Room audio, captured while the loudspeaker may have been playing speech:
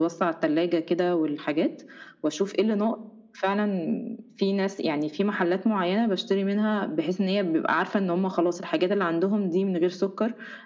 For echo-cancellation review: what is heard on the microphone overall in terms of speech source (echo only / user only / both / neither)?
echo only